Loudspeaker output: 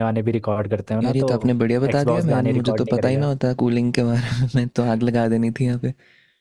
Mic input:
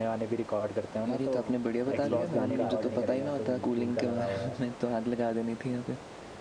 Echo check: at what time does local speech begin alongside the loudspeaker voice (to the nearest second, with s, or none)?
2 s